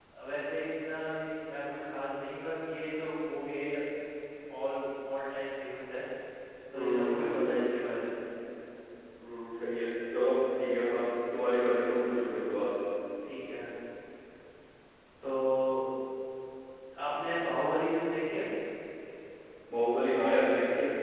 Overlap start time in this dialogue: 6.8 s

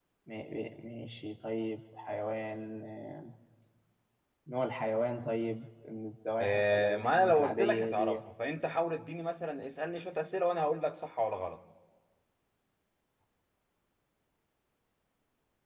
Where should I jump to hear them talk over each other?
6.4 s

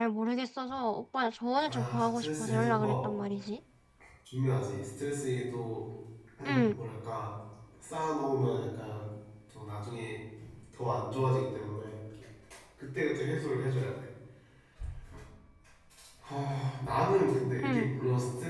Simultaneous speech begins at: 1.7 s

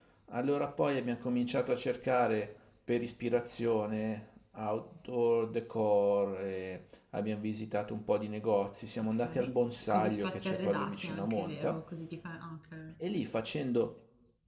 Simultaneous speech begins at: 9.2 s

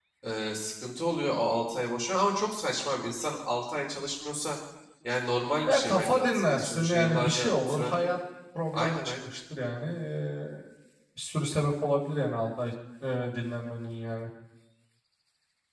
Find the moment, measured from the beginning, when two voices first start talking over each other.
5.7 s

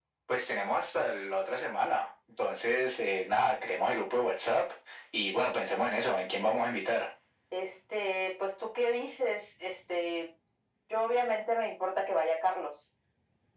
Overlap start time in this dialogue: none

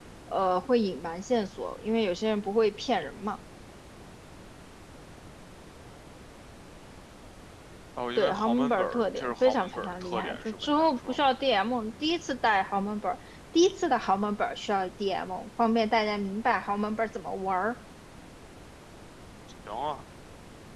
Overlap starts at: 8.2 s

